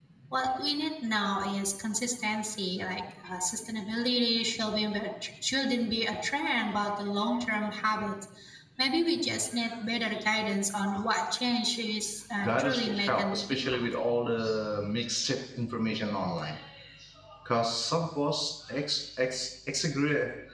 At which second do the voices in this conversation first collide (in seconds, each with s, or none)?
12.4 s